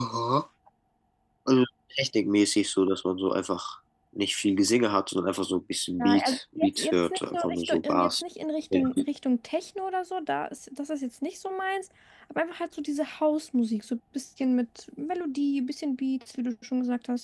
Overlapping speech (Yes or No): Yes